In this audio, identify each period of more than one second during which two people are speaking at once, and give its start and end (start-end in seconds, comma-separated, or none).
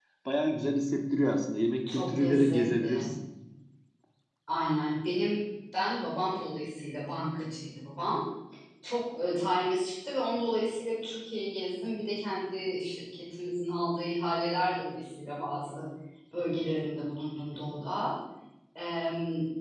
1.9-3.1